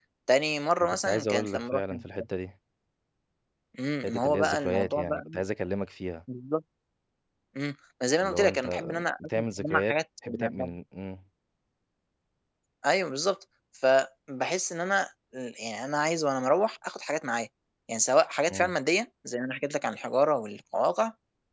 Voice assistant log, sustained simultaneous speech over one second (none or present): present